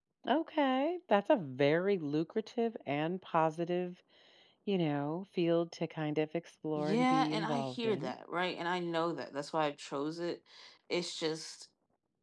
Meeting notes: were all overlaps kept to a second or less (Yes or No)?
No